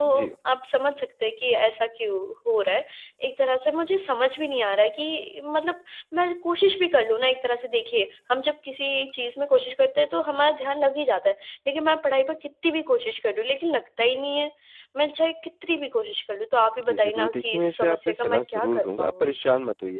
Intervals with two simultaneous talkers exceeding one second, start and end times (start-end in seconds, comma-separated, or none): 16.9-19.4